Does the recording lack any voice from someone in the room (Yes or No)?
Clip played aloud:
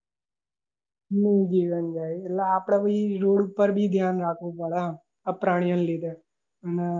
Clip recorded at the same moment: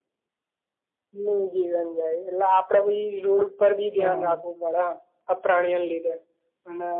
No